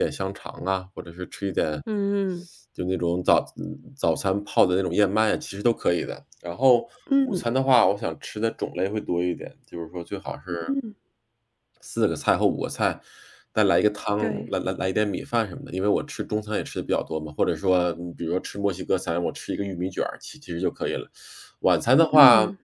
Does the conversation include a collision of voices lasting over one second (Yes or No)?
No